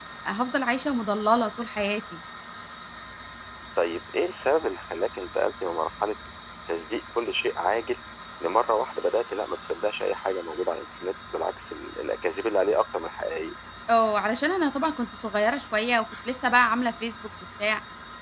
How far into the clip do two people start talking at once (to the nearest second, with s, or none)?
none